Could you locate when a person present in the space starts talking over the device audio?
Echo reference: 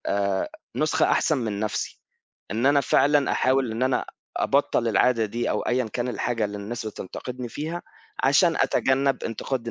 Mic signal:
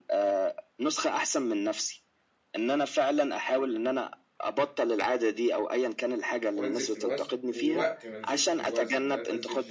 7 s

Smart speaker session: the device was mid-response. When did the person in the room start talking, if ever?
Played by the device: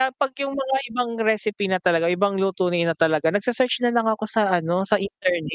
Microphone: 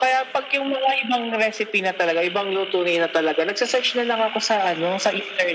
none

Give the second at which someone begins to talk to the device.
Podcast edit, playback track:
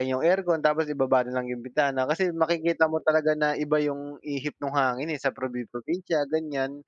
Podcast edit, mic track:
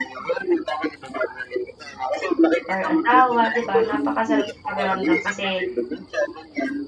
3 s

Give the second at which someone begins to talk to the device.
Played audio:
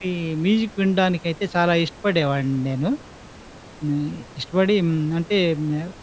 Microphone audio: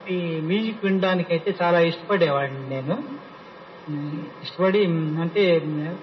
none

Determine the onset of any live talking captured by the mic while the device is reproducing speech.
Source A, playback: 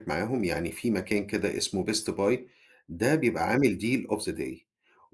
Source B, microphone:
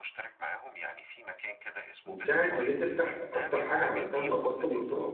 2 s

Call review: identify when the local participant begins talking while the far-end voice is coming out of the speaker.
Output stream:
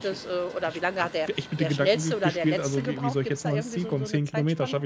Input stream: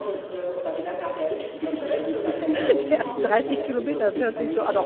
2 s

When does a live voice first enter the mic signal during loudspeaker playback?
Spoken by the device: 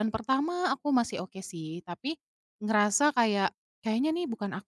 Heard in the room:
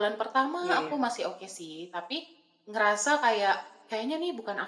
1 s

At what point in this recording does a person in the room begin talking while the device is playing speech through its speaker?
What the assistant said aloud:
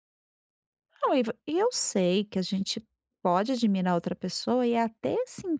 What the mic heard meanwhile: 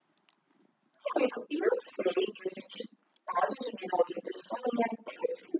none

